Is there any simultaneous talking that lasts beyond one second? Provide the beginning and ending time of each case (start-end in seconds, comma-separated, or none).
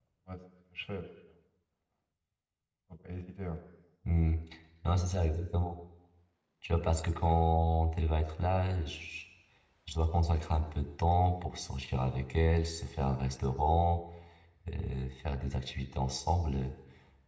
none